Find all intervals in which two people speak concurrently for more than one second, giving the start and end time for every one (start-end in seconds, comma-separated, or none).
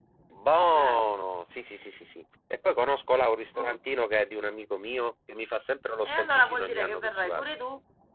6.0-7.4